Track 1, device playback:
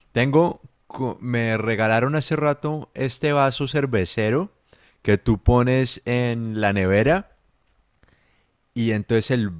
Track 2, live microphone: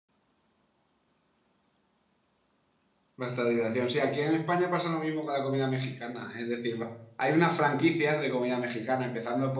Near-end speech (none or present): present